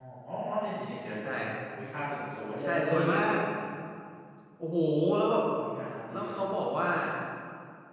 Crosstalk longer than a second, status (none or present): none